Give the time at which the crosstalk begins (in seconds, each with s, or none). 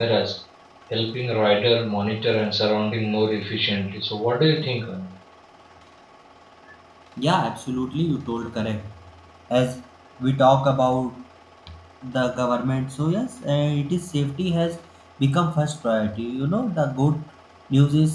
none